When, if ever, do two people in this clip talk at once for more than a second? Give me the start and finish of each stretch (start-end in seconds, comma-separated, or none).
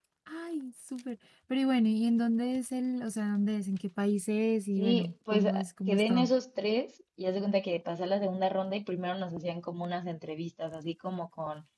4.8-6.3